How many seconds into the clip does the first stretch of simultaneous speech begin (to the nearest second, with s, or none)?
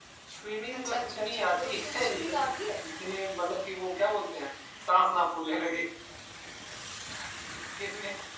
1 s